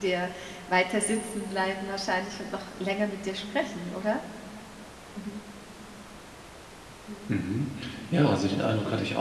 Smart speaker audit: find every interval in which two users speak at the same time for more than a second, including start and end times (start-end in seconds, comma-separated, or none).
none